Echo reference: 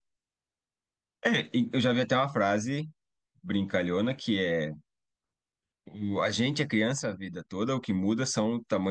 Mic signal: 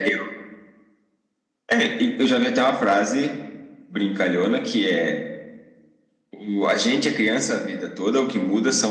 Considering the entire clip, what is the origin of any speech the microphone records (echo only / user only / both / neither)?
echo only